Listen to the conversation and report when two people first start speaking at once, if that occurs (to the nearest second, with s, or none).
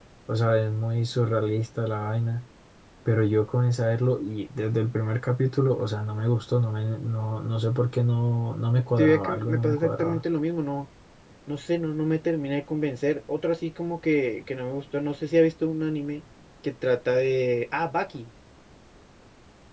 9 s